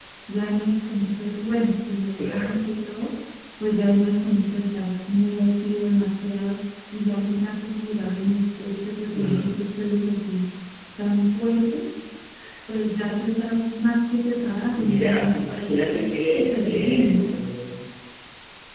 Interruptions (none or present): present